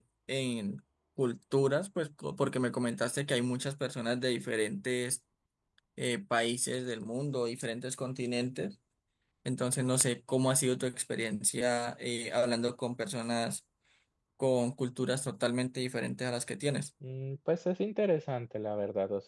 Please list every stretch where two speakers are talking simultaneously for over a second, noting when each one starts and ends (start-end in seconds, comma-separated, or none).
none